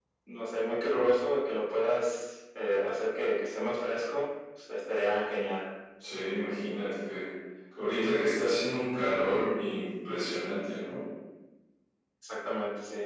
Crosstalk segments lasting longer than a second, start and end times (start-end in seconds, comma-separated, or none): none